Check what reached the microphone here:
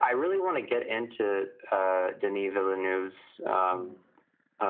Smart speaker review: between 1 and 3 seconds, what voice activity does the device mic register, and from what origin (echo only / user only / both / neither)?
echo only